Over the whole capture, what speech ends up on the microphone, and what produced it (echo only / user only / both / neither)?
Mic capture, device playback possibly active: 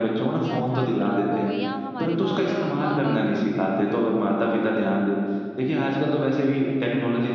both